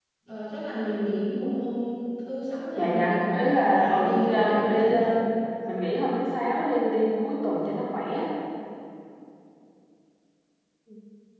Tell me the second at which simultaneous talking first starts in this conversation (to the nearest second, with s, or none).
3 s